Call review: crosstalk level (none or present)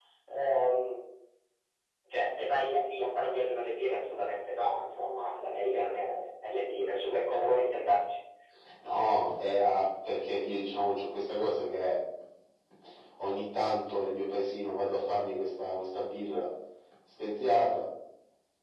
none